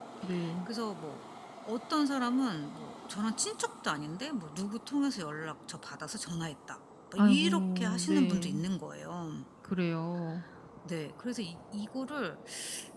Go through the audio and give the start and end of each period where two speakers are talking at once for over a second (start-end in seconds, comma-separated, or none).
7.2-8.6